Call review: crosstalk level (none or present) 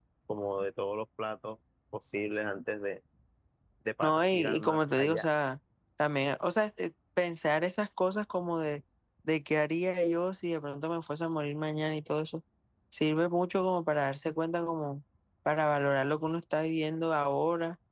present